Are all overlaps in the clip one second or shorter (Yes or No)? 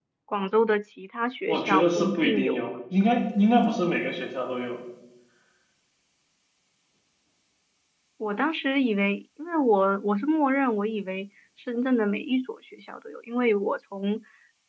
No